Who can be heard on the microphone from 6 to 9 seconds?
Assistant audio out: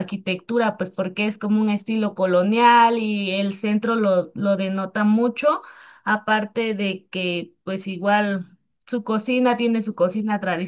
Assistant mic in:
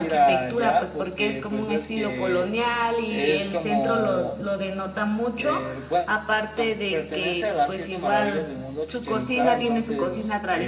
both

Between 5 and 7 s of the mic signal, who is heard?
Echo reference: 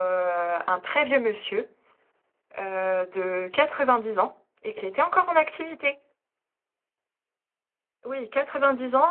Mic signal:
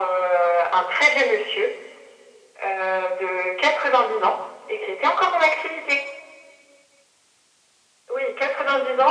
echo only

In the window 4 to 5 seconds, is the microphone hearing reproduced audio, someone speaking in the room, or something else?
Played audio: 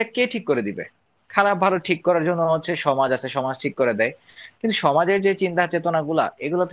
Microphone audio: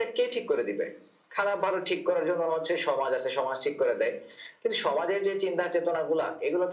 echo only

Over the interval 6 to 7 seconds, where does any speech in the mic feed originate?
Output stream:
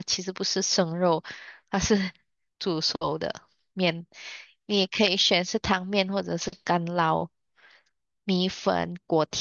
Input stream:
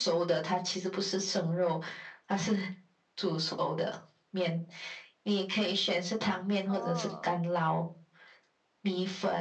both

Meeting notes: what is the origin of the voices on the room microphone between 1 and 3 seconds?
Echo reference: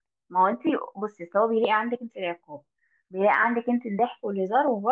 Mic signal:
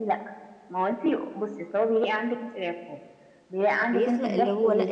echo only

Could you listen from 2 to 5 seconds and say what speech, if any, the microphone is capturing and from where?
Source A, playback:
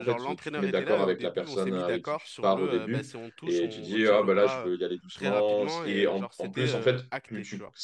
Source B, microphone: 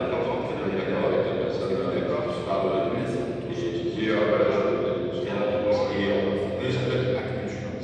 echo only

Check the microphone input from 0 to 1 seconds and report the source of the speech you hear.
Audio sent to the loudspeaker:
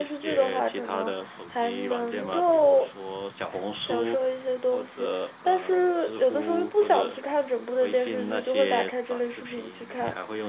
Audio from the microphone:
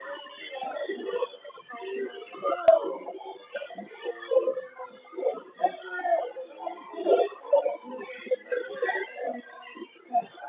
echo only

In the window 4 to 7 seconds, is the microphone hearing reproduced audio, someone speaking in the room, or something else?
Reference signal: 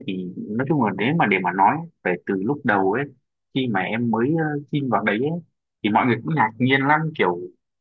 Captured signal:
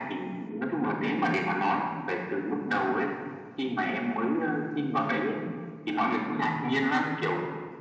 echo only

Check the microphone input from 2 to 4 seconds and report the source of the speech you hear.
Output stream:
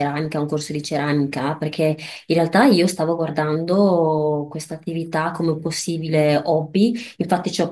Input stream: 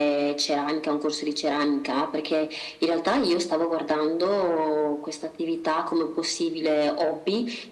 echo only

